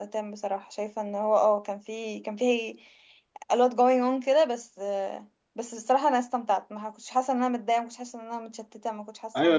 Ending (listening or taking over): taking over